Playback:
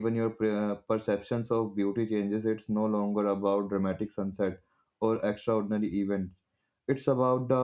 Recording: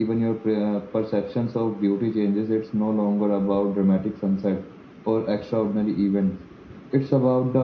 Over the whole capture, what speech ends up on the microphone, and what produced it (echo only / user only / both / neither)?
echo only